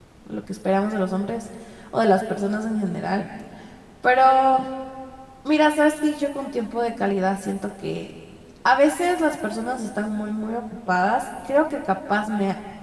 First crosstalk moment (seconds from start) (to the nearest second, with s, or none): none